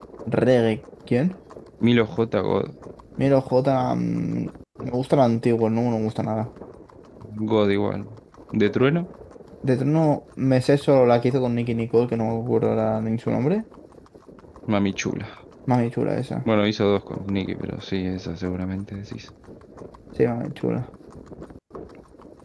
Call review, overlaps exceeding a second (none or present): none